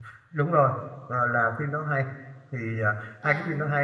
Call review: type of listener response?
listening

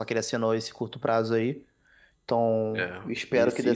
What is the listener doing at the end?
taking over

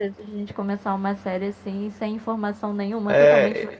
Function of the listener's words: taking over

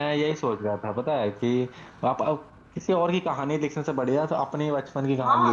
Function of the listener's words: taking over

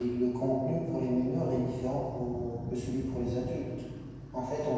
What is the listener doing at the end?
listening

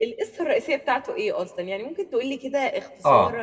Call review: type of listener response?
taking over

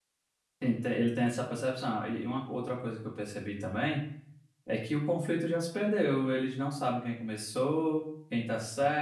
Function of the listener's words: listening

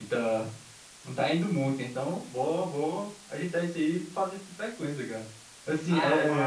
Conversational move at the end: taking over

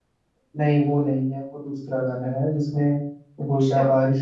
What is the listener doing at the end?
listening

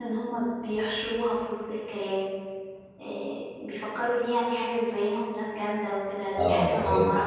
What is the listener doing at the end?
taking over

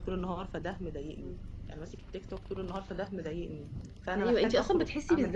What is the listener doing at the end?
taking over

